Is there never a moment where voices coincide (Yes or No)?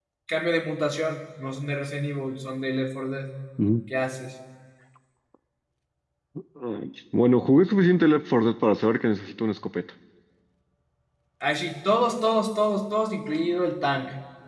Yes